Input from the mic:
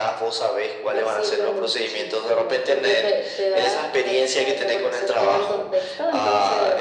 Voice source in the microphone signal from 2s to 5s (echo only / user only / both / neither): echo only